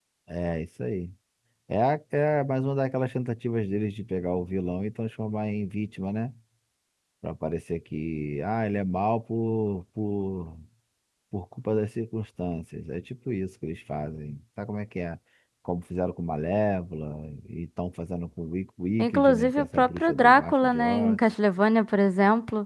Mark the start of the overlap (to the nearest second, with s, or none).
19 s